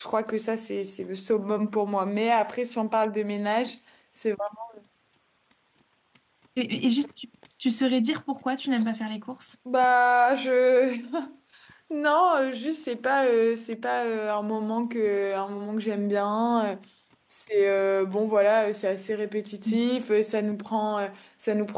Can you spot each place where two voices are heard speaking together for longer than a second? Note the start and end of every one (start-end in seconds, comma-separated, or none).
none